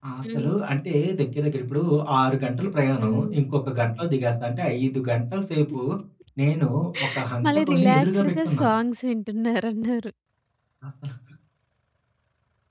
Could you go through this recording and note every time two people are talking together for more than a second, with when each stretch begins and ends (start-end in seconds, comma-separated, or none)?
7.5-8.7